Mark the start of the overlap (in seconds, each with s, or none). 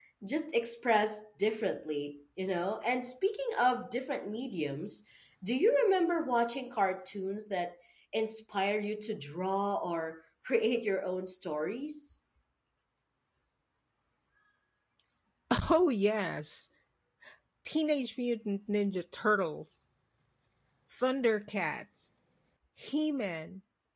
none